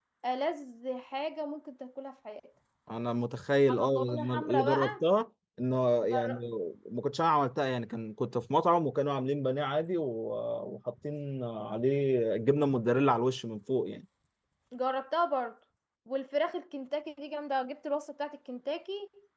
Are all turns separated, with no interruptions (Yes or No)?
No